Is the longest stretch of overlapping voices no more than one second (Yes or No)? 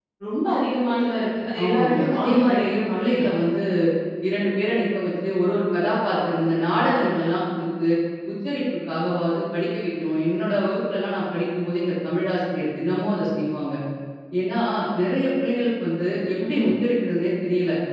No